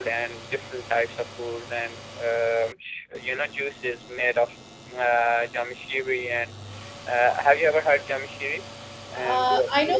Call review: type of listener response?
taking over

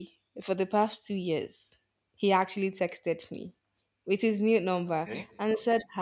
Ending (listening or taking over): listening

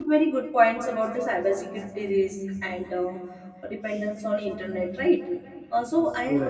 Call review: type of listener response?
listening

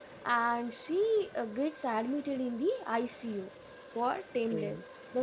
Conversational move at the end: listening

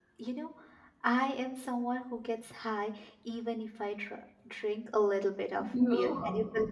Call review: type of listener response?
listening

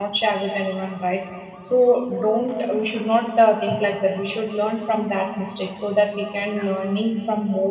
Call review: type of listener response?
listening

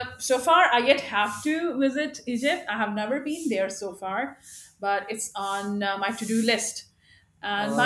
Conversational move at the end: taking over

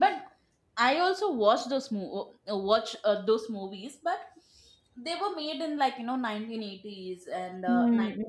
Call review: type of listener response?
listening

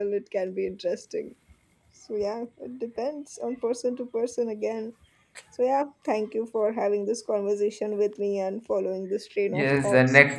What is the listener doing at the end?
taking over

